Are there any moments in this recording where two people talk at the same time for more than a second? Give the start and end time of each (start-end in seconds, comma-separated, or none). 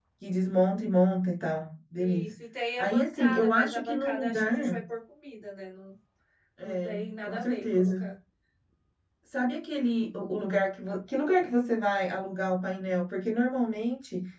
2.8-4.8, 6.6-8.0